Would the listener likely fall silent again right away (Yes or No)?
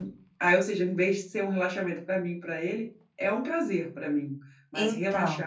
Yes